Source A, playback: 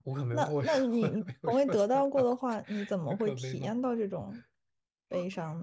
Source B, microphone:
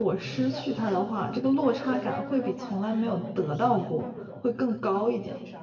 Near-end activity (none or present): present